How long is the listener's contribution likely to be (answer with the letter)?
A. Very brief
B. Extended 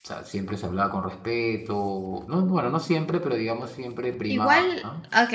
B